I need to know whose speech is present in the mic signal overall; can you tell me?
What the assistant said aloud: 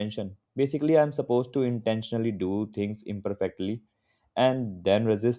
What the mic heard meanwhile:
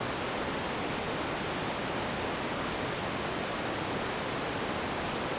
neither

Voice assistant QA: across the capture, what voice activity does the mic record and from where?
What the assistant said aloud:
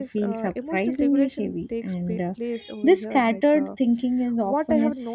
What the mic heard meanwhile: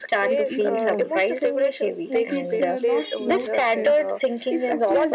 both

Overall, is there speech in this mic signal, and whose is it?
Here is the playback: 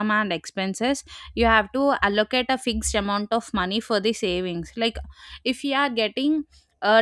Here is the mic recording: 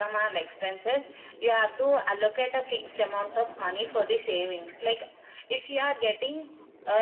echo only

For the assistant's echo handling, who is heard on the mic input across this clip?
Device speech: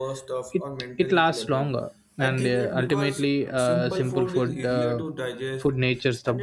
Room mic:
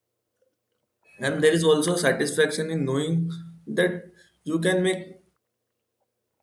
user only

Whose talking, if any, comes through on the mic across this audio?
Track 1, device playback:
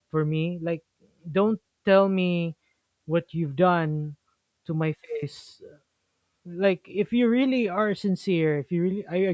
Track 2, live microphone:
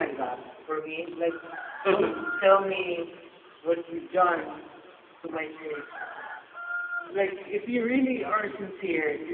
both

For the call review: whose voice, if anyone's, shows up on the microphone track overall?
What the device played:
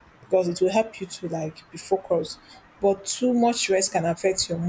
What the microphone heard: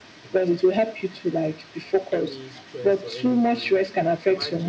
both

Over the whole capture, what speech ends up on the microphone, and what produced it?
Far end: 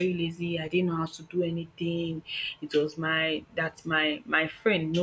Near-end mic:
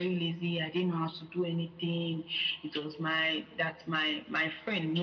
echo only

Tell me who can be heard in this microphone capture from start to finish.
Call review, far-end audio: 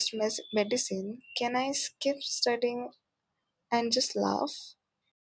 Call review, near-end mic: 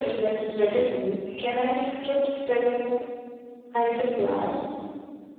echo only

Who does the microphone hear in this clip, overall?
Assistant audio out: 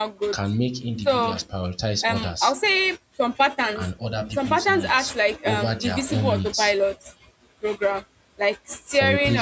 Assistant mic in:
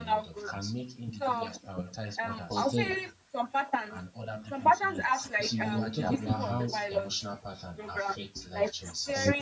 both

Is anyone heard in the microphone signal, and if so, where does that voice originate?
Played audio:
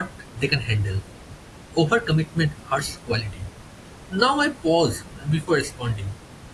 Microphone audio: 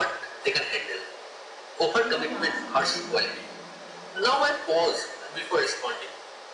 both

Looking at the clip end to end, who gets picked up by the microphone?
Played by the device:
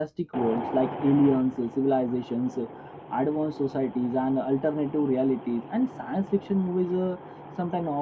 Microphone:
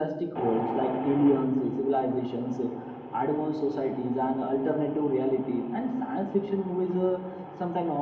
echo only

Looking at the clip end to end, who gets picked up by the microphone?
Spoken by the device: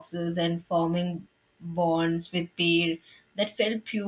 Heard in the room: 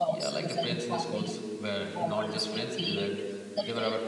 both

